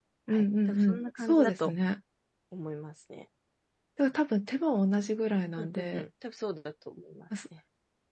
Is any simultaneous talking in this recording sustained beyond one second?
Yes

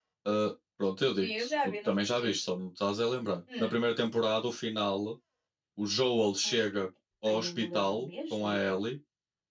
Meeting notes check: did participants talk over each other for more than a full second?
Yes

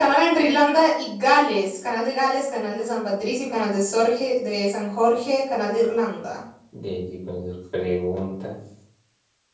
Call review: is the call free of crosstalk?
Yes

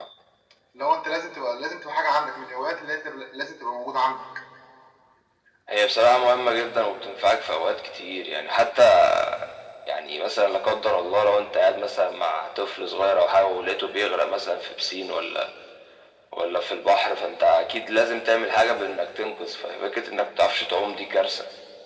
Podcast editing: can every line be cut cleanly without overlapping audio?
Yes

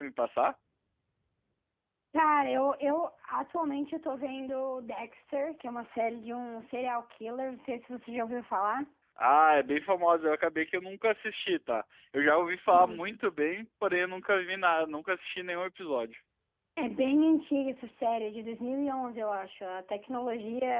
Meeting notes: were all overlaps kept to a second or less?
Yes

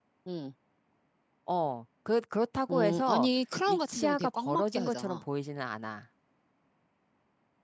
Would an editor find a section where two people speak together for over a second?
Yes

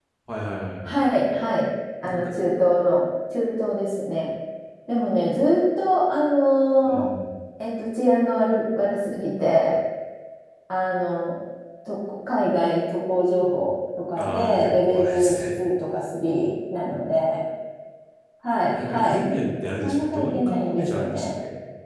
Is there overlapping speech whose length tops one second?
Yes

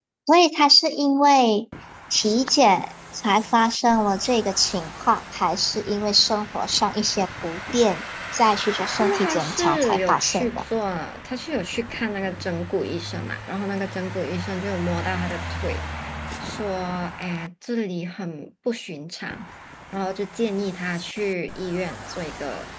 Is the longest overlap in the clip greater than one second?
Yes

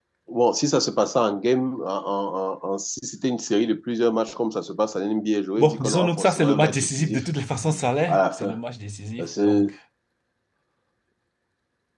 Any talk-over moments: Yes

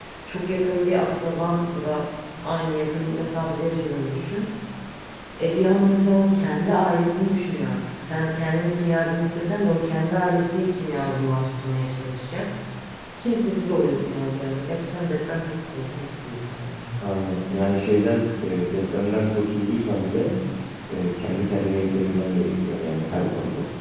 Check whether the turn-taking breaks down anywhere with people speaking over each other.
No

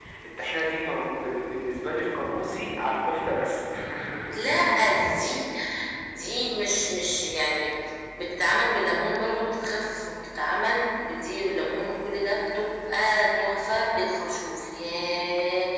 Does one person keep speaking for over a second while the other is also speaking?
No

